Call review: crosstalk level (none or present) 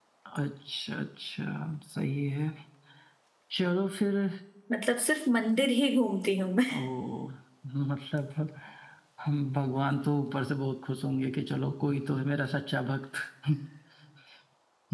none